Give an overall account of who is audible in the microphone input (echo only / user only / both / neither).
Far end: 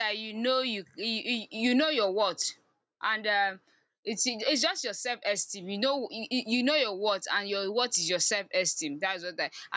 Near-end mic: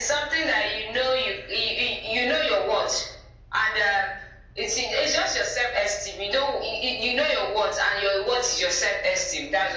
echo only